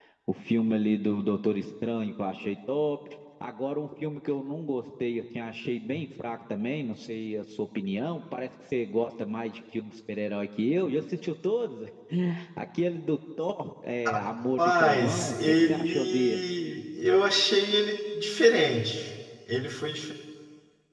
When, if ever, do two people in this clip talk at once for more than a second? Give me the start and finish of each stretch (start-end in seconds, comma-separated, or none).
14.6-16.4